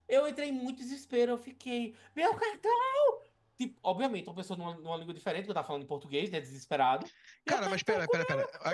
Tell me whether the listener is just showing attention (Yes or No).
No